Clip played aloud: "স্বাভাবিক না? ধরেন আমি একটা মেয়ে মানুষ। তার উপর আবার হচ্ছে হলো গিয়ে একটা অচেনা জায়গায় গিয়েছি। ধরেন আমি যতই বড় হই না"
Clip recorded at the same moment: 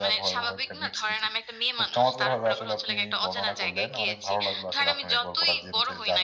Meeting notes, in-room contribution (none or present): present